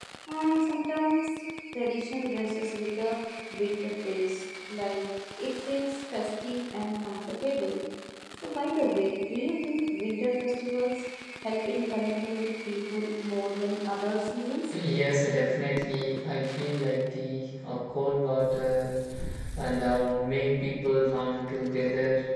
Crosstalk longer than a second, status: none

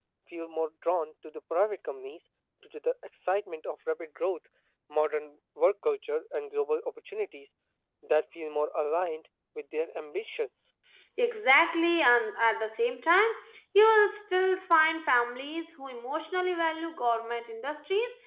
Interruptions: none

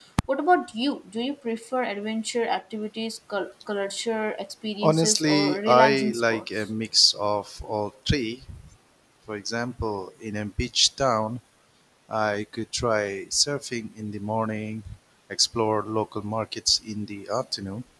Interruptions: present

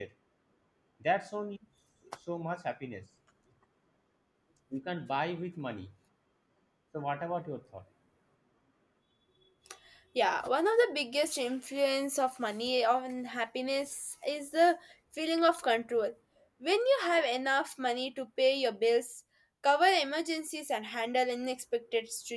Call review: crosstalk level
none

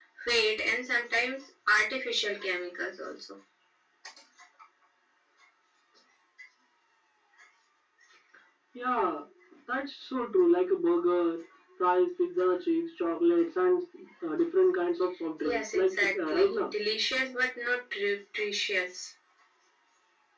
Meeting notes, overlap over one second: present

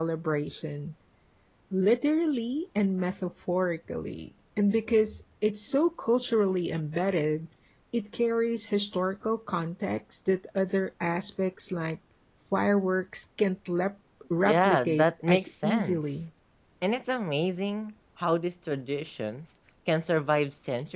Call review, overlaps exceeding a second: present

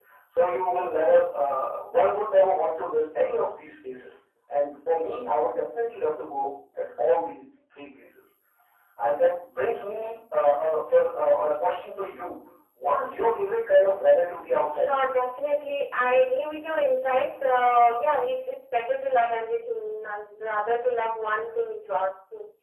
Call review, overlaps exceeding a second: none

